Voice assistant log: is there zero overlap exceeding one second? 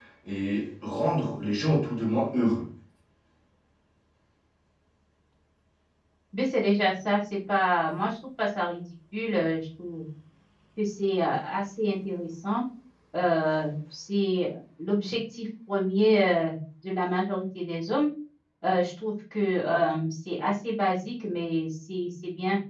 Yes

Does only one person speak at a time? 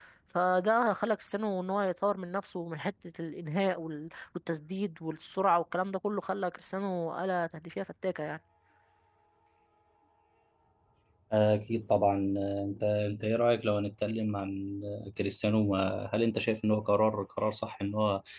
Yes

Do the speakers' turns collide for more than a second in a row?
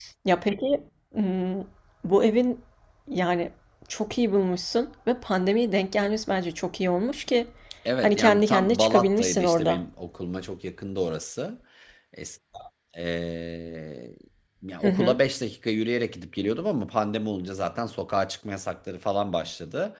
Yes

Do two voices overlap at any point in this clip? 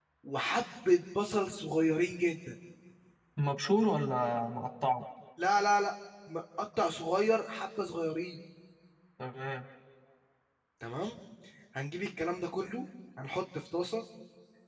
No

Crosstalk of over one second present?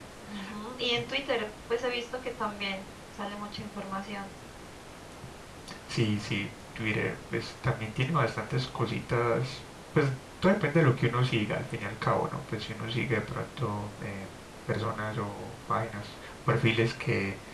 No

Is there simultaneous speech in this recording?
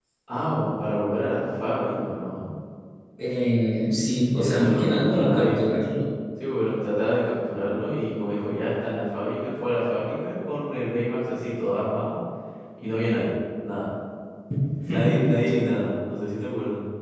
Yes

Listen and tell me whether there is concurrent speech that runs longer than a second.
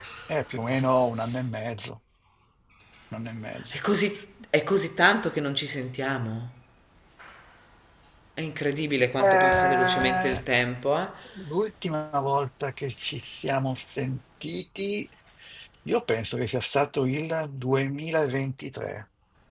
Yes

